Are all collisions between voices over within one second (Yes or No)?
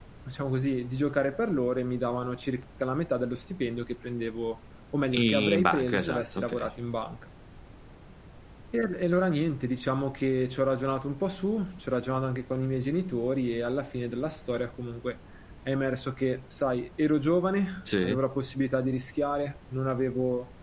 No